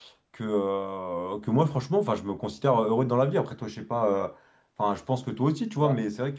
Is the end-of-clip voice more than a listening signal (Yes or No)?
No